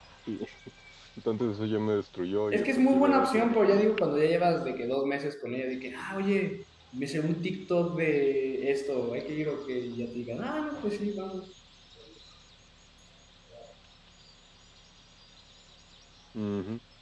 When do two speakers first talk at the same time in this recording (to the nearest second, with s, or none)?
3 s